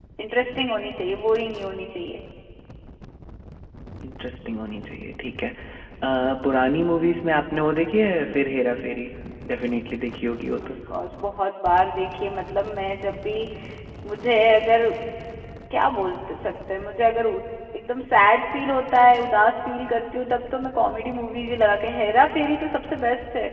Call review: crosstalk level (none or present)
none